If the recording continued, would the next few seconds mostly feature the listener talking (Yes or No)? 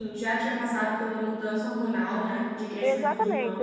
Yes